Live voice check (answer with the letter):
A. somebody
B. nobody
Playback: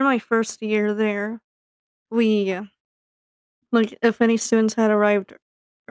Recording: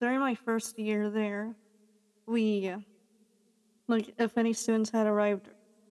B